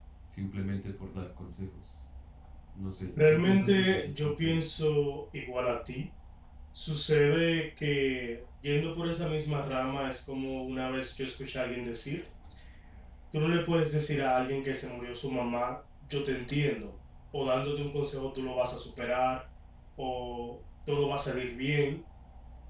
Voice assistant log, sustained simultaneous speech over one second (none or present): present